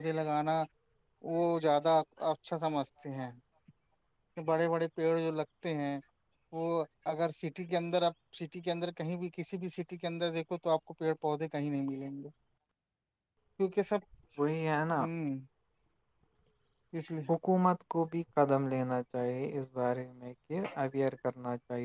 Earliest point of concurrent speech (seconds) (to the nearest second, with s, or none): none